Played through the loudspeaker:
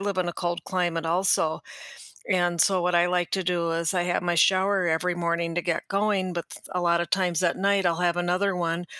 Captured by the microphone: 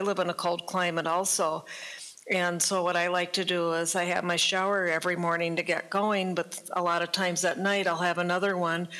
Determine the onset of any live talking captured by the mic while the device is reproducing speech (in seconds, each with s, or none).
none